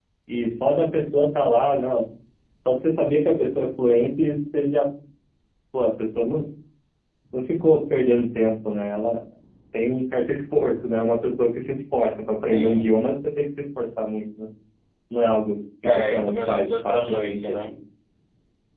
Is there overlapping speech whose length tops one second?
Yes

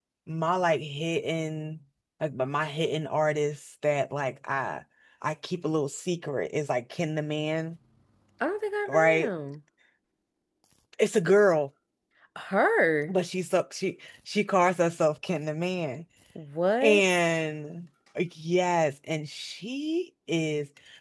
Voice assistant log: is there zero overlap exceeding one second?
Yes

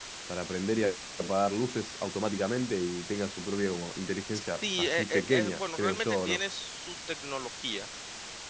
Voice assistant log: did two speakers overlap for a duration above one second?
Yes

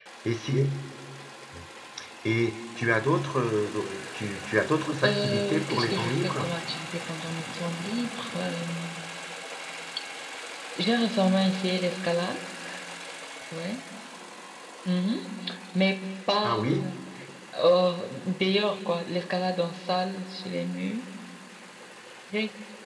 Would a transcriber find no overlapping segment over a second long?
No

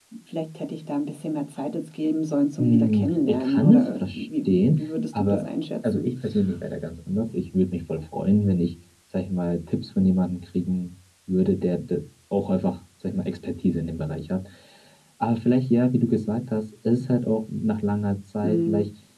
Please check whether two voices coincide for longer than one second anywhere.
Yes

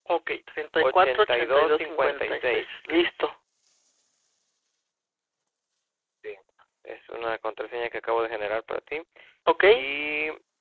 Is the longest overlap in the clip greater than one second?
Yes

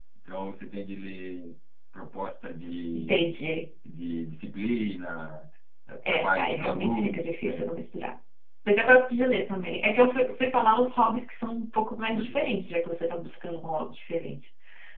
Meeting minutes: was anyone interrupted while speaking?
Yes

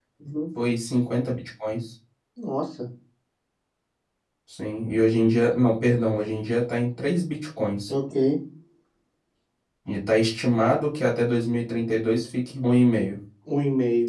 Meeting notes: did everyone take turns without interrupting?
Yes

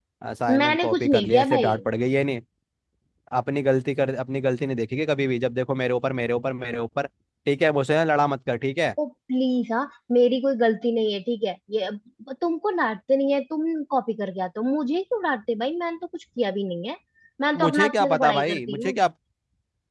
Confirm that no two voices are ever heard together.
No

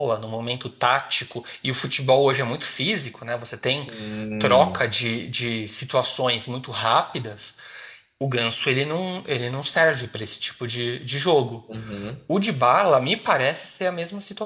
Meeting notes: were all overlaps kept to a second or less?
Yes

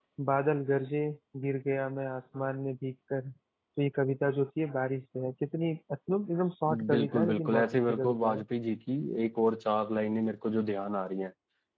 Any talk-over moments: Yes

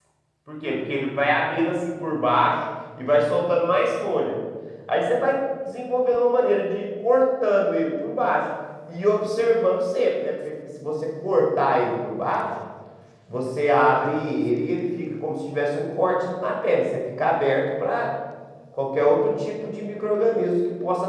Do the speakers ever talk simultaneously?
No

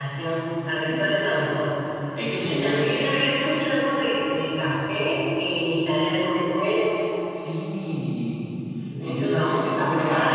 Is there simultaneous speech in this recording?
Yes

